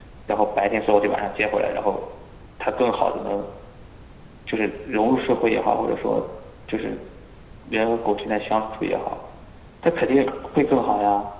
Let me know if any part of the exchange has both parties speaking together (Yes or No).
No